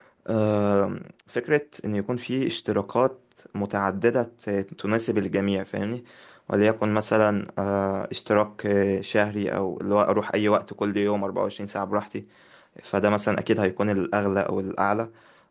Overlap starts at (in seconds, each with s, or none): none